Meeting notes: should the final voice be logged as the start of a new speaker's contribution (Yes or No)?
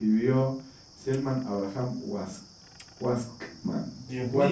Yes